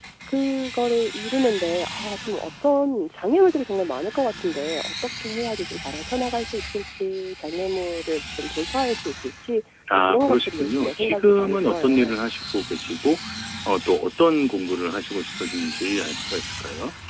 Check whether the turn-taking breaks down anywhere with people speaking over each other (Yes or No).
Yes